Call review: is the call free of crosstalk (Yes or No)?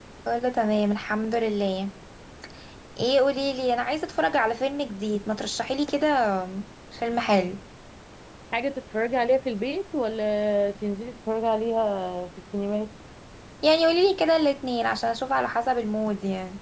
Yes